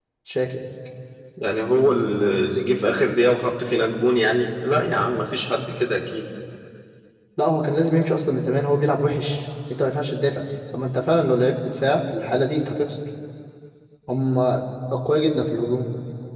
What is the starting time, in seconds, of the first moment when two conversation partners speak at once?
none

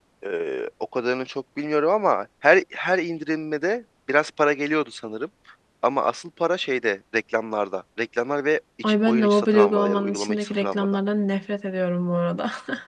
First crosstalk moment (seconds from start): 8.8 s

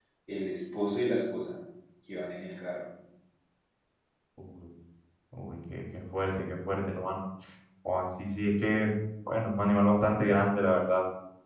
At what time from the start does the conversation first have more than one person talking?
none

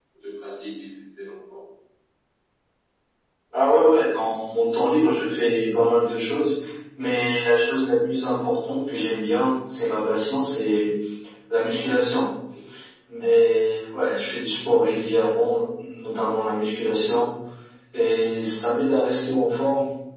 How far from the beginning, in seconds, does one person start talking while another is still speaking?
none

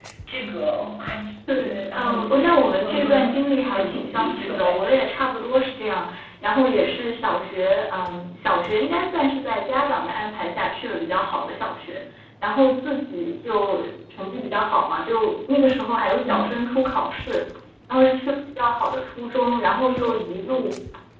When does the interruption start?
1.5 s

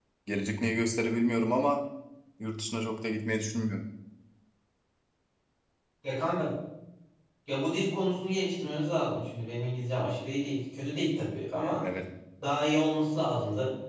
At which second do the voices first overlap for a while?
none

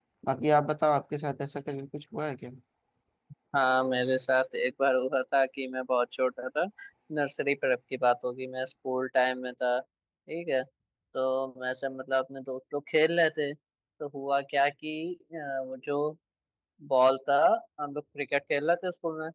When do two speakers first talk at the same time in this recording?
none

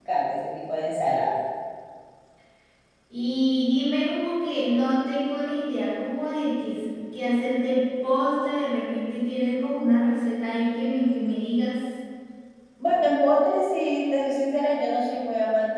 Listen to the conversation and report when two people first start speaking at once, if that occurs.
none

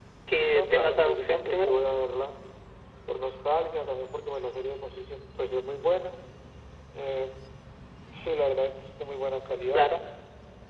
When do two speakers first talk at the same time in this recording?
0.5 s

